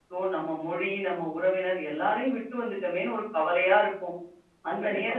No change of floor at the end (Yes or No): Yes